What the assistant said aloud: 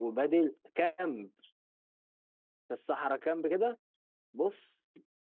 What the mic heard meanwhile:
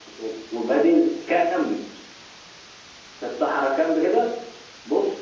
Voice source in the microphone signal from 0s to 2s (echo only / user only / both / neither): echo only